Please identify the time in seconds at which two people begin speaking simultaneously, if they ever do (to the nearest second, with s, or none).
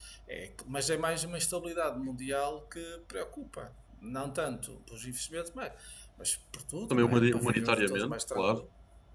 7 s